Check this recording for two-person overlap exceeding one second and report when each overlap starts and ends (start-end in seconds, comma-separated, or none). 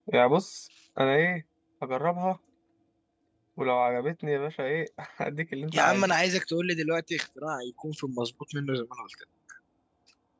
none